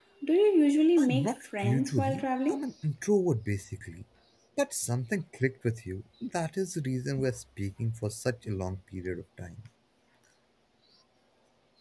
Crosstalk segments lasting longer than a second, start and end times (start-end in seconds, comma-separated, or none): 1.0-2.7